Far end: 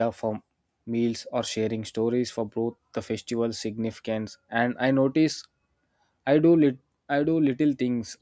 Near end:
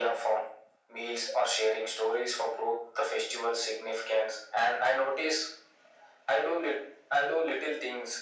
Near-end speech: none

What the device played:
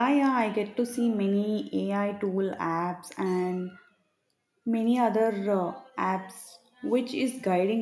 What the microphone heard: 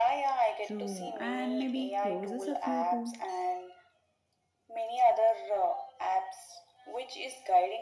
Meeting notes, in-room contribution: present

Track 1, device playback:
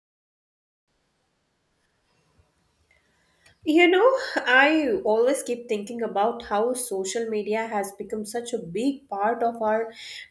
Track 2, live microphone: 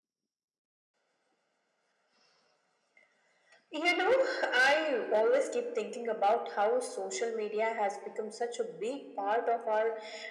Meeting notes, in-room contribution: none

